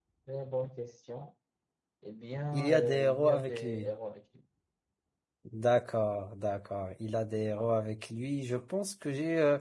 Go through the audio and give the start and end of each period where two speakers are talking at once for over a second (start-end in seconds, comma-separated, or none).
2.5-3.9